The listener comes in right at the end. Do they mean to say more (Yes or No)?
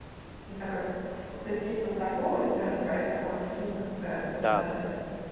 Yes